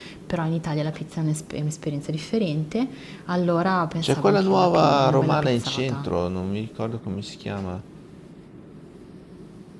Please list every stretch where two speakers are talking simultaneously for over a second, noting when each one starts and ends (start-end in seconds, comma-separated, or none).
4.0-6.1